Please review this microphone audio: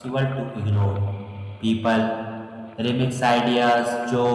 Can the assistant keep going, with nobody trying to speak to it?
No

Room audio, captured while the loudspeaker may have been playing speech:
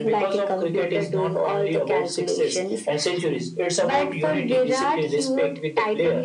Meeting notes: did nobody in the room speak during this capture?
Yes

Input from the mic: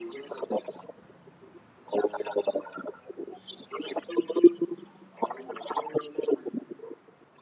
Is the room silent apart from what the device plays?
Yes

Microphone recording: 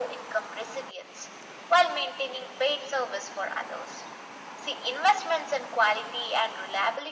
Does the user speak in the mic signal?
No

